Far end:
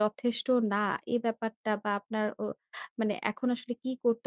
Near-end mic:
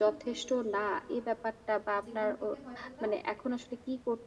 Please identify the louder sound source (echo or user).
echo